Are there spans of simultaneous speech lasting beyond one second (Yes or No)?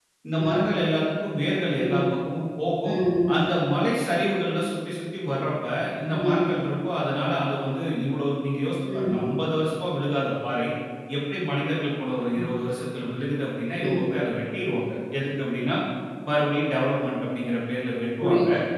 No